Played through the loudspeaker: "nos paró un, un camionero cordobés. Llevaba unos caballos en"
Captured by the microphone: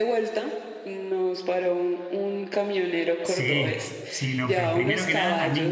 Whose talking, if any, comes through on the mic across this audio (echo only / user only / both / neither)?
both